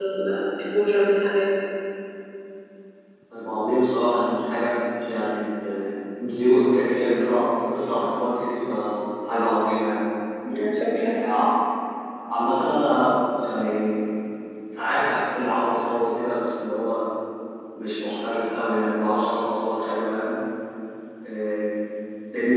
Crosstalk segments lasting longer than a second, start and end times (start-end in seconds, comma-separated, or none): none